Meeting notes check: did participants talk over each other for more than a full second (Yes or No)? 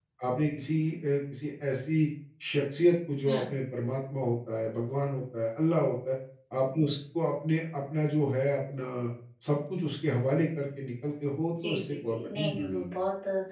Yes